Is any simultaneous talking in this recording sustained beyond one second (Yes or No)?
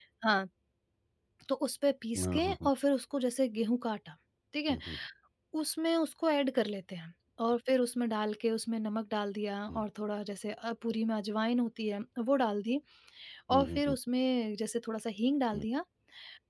No